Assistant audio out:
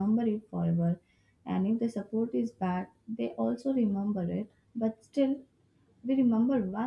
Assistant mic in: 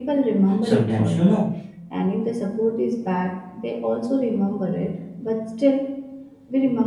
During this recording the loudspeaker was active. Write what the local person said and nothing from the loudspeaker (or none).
Sometimes, you know,